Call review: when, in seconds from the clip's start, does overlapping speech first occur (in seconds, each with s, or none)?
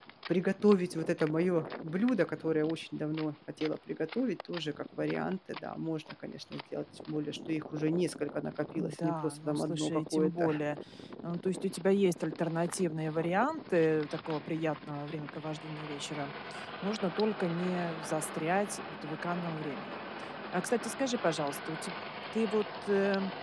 8.8 s